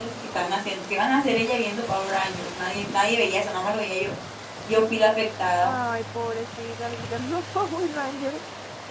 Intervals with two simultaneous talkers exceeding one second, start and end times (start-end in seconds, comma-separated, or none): none